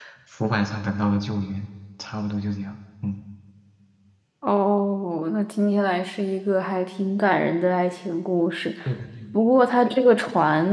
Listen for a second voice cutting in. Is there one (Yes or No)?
No